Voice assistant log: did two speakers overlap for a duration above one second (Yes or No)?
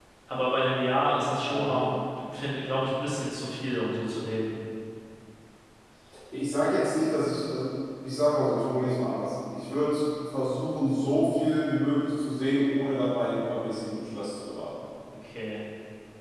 No